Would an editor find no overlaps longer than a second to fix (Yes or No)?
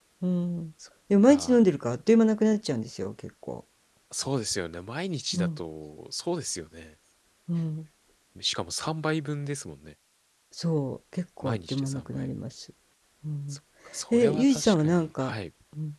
No